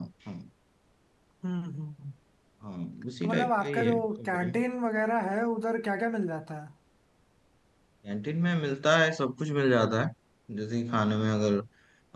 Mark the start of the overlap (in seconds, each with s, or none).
3.2 s